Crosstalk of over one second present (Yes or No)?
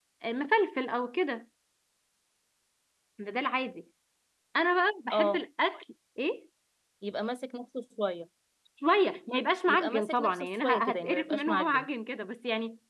Yes